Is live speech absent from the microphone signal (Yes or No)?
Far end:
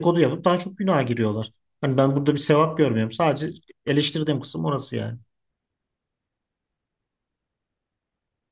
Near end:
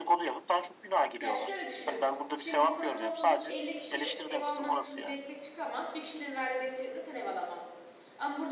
No